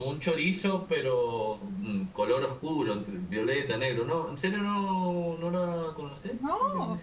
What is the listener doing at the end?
taking over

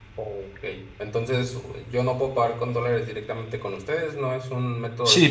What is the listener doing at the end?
taking over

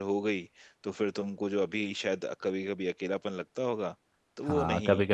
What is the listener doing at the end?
taking over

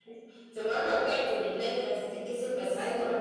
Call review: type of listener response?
taking over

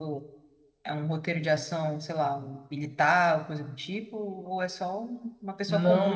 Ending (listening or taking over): taking over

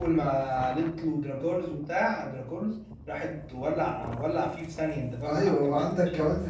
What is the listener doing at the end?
taking over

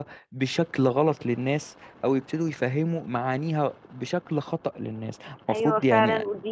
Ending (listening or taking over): taking over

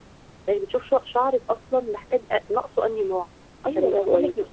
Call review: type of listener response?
taking over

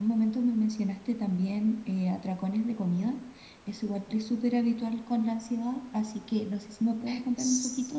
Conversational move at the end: taking over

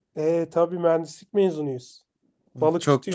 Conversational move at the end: taking over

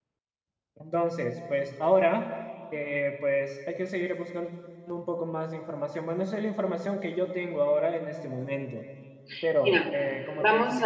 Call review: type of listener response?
taking over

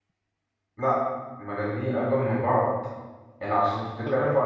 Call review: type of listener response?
listening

